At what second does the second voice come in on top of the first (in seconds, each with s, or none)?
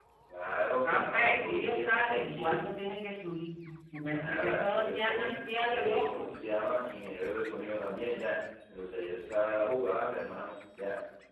0.8 s